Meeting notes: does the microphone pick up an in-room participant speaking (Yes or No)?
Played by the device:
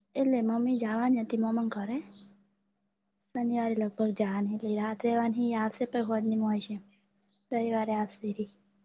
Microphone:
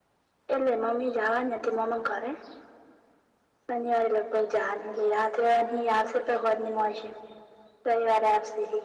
No